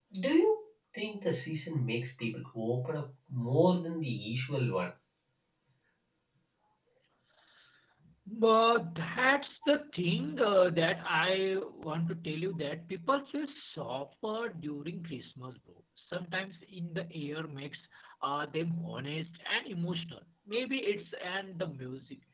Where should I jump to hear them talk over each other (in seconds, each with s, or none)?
none